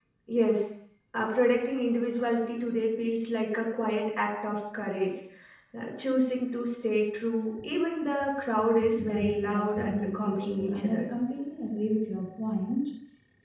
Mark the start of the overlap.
8.8 s

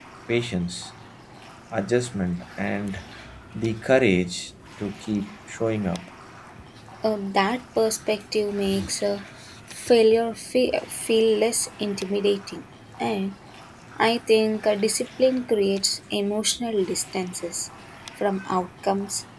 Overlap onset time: none

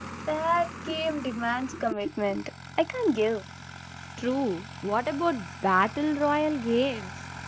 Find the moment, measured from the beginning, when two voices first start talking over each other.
none

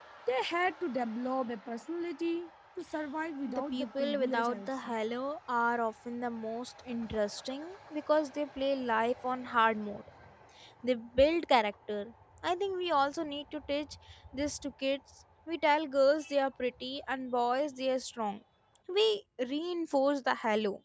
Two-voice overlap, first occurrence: 3.5 s

